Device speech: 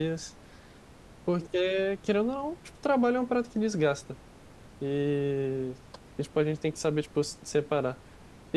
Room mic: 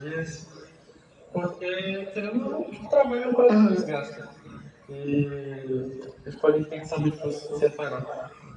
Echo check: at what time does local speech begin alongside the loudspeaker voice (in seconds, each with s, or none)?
3.5 s